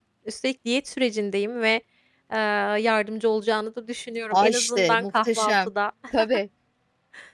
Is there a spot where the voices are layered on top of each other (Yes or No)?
Yes